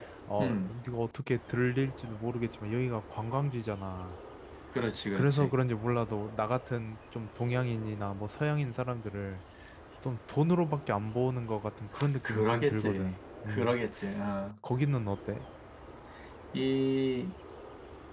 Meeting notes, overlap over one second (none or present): present